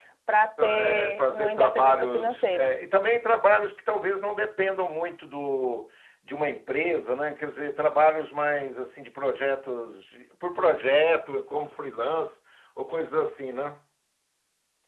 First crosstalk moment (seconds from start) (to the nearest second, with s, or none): 1 s